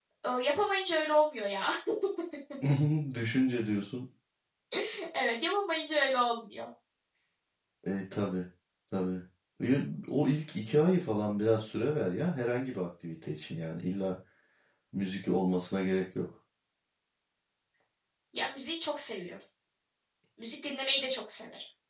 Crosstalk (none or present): none